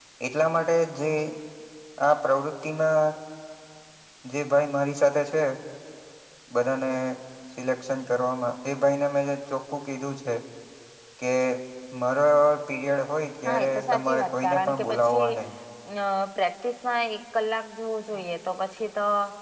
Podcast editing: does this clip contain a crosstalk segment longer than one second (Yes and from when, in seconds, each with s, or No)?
Yes, from 13.4 s